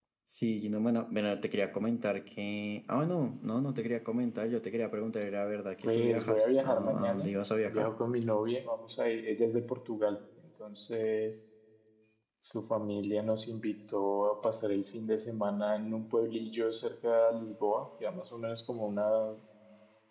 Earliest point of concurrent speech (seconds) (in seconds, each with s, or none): 5.8 s